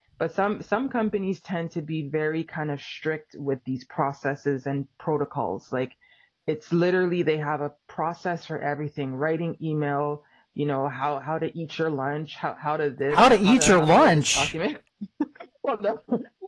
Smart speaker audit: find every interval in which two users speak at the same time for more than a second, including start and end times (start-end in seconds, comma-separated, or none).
13.1-14.5